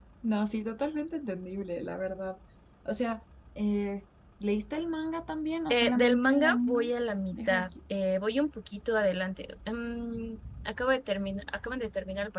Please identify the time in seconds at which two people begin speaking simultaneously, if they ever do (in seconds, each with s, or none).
5.7 s